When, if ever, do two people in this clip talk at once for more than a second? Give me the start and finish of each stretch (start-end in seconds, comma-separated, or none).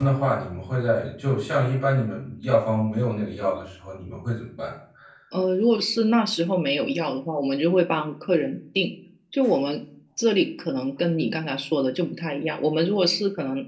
none